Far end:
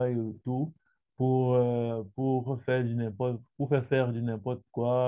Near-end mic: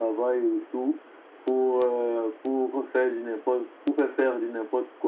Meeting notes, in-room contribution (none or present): none